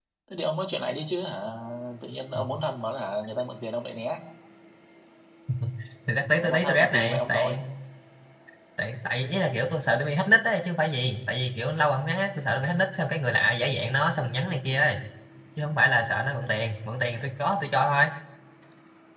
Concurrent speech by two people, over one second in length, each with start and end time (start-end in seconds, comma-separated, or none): 6.4-7.6